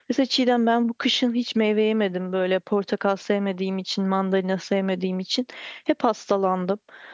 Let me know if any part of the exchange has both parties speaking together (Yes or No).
No